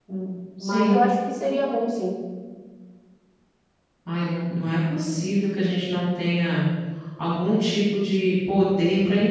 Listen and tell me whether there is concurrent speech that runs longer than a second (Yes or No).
No